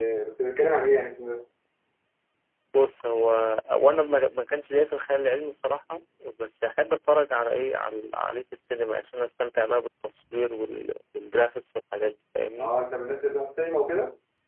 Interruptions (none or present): none